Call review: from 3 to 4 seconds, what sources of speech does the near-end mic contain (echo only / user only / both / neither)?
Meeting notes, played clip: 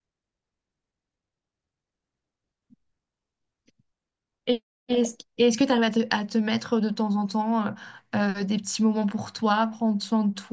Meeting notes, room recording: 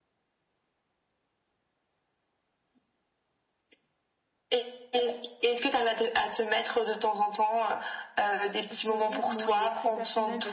neither